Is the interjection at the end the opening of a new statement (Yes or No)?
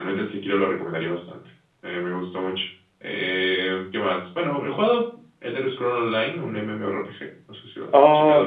Yes